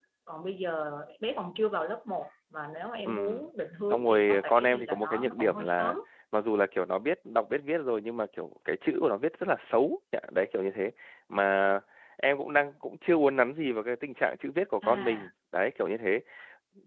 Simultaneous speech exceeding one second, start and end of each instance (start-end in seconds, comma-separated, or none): 3.9-6.0